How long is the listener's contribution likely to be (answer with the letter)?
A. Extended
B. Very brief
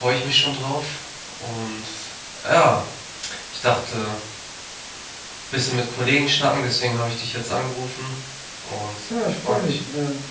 A